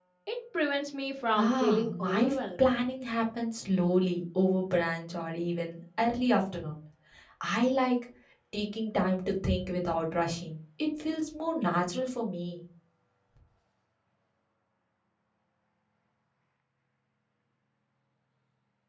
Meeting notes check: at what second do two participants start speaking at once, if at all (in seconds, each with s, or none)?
1.3 s